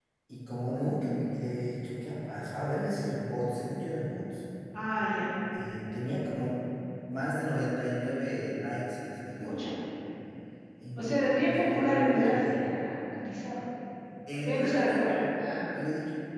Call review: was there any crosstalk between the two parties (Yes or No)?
Yes